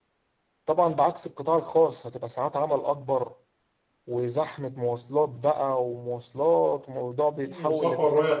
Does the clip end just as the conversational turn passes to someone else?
Yes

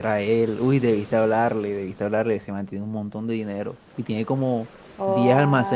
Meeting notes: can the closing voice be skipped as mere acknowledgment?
Yes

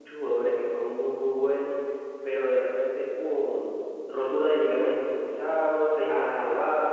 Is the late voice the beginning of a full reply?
No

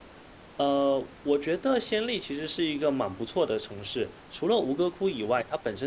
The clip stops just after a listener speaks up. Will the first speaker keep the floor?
Yes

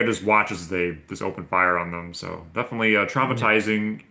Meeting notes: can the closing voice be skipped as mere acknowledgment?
Yes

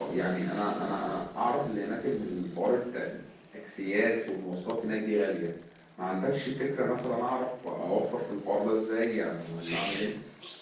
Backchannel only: No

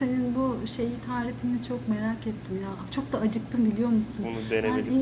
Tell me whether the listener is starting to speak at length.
No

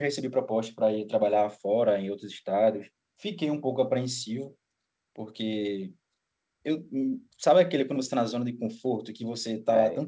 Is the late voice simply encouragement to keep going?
Yes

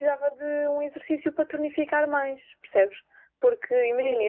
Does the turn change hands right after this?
No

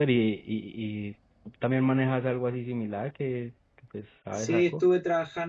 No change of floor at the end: No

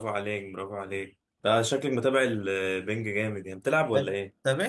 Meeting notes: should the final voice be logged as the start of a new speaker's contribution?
Yes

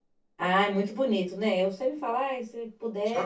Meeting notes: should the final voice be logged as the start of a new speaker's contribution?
Yes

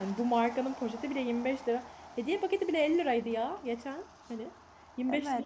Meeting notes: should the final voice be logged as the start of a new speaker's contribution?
Yes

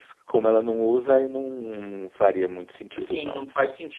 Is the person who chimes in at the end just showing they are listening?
No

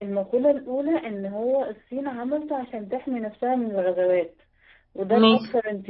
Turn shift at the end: No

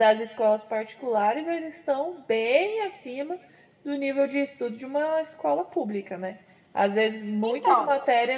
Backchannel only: Yes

